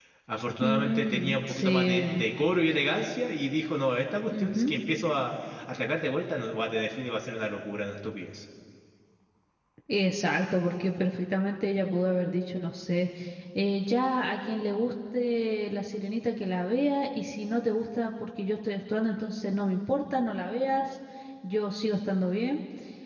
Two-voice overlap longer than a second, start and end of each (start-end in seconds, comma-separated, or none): 0.6-2.2